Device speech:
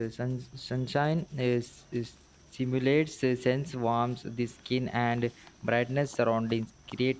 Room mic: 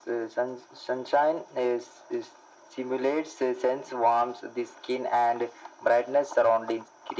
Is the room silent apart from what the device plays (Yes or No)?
Yes